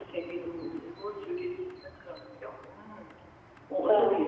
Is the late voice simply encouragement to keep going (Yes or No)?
No